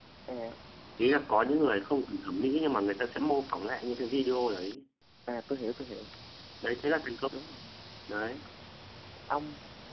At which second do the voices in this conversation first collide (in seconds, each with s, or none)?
none